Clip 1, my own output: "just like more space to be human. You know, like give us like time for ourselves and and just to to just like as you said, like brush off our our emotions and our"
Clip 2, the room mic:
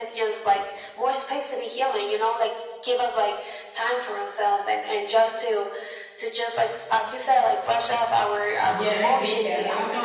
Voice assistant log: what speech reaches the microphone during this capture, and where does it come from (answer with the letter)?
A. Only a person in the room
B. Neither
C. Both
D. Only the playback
C